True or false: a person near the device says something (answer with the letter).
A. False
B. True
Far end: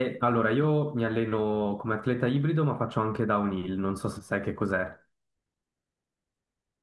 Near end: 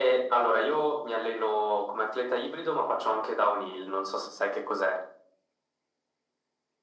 A